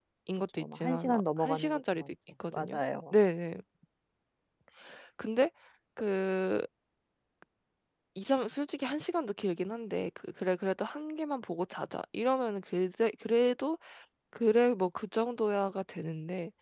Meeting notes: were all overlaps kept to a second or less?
No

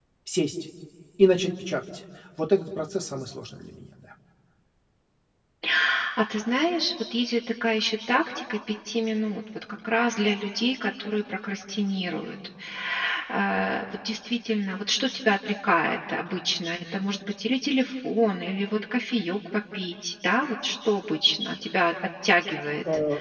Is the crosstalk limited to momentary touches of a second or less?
Yes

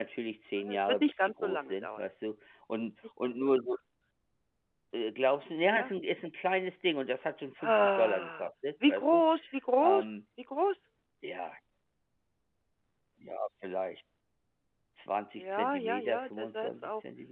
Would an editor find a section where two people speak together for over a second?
Yes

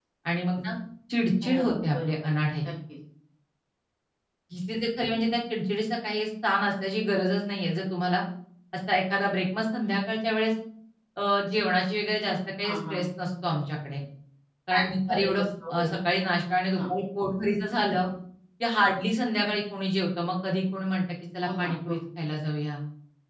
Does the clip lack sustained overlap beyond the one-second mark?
No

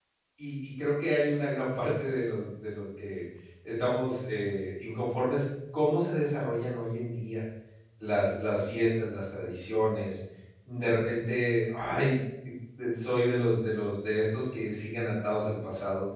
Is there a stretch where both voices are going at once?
No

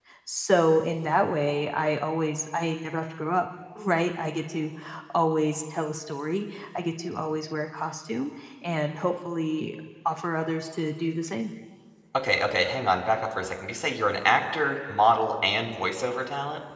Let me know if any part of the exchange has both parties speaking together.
No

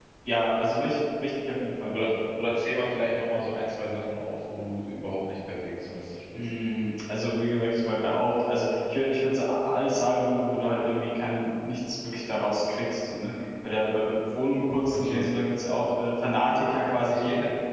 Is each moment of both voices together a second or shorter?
Yes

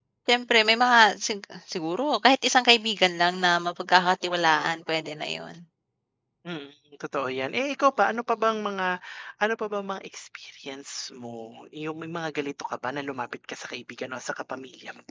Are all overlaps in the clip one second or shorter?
Yes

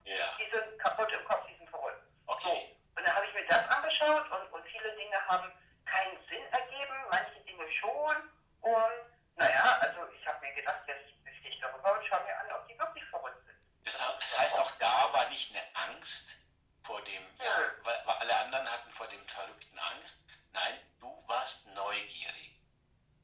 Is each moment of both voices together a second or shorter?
No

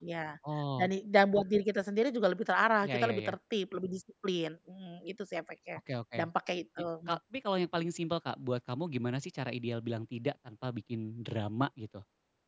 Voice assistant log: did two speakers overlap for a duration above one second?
No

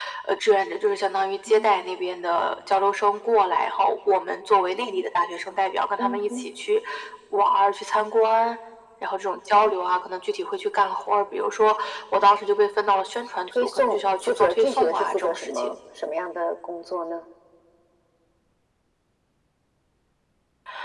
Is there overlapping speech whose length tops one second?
Yes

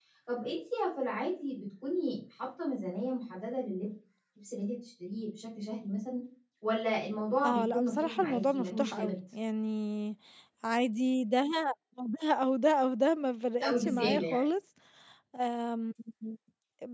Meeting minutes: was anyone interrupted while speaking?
Yes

